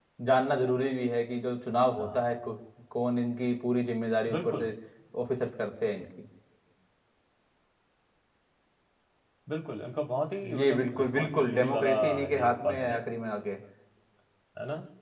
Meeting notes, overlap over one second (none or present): present